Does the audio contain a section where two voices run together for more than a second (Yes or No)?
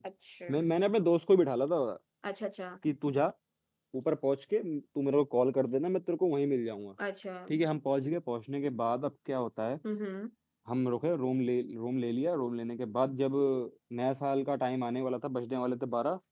No